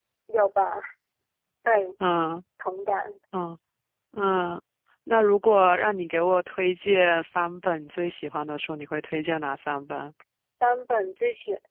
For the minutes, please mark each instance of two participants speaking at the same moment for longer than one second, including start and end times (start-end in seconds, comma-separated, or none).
none